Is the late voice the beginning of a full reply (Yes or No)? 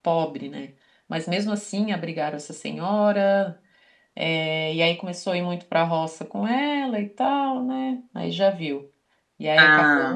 No